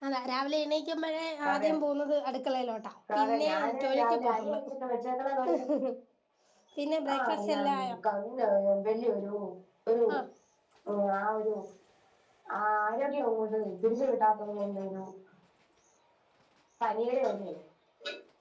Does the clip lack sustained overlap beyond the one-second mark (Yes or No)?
No